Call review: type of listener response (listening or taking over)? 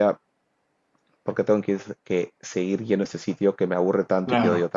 listening